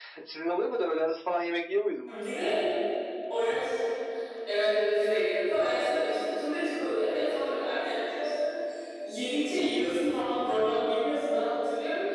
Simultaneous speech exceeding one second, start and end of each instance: none

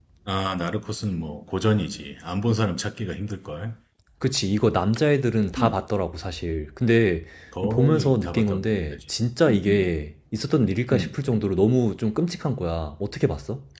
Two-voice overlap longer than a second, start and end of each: 7.7-9.0

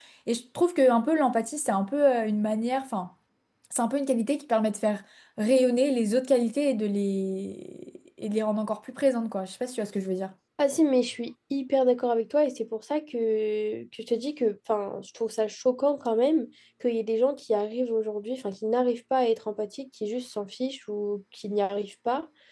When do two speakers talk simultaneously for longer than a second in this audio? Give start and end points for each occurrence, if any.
none

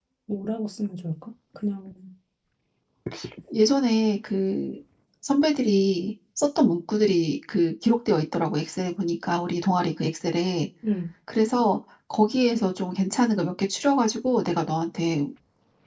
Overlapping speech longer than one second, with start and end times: none

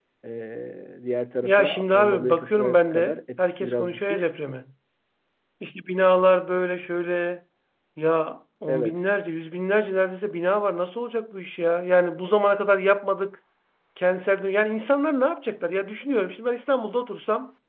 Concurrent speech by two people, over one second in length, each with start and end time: 1.4-4.3

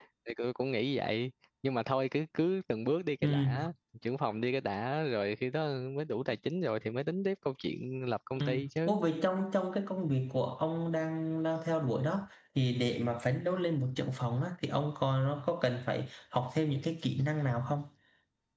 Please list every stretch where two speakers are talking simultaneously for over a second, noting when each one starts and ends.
none

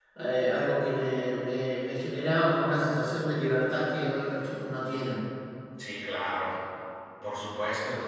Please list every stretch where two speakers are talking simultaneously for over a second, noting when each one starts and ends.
none

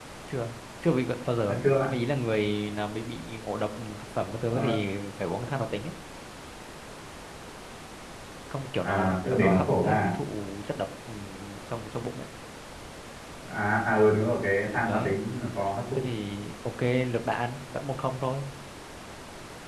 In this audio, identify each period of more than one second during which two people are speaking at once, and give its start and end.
8.8-10.2

